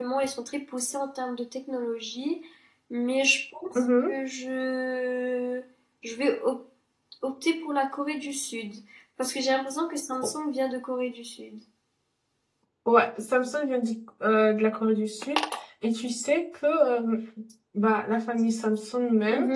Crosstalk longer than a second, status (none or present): none